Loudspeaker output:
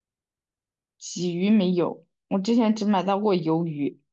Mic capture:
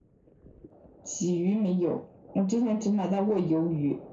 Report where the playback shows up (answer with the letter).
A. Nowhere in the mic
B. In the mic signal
B